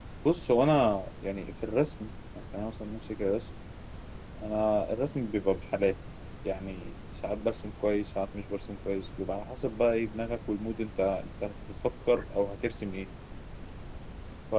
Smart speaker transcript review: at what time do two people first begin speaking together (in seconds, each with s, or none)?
none